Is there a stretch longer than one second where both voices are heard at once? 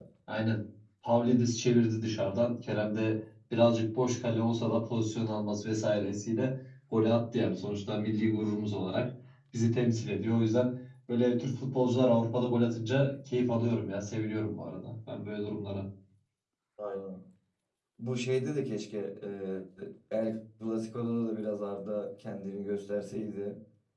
No

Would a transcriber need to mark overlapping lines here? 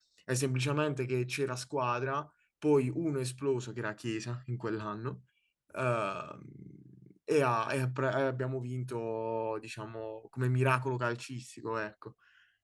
No

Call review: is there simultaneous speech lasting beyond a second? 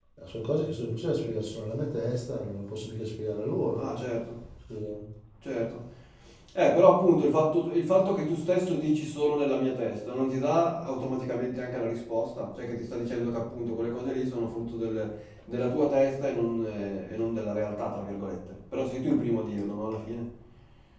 No

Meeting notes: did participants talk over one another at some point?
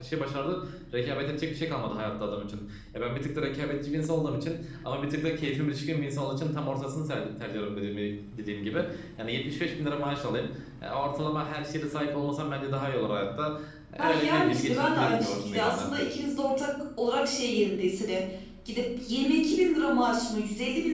Yes, from 14.0 s

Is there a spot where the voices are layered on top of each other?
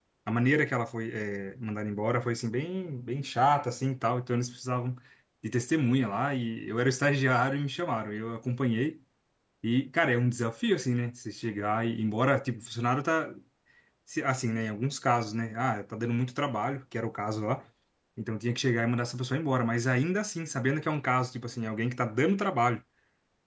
No

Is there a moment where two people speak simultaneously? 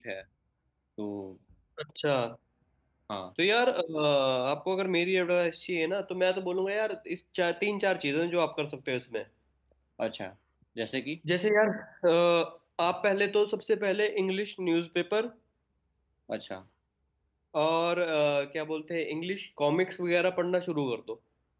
No

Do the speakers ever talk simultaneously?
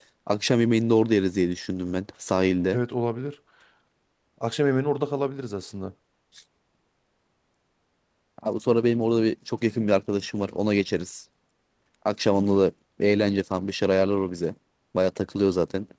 No

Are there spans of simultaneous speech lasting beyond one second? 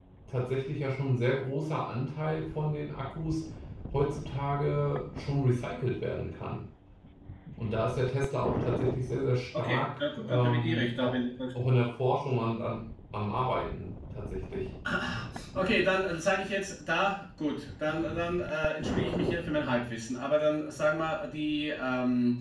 Yes, from 9.5 s

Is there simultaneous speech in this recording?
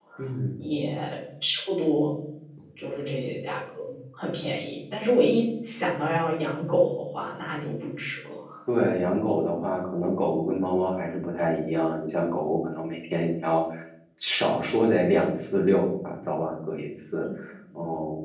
No

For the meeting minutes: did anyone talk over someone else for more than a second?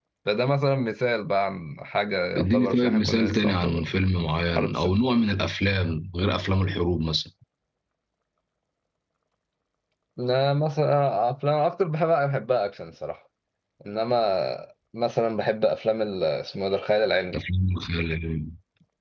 Yes, from 2.4 s

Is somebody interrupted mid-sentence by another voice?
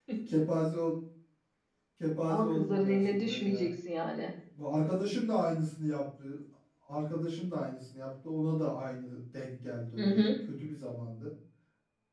Yes, from 2.3 s

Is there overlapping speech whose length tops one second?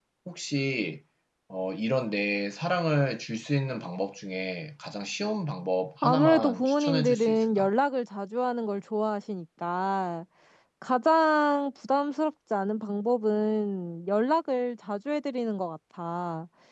Yes, from 6.0 s

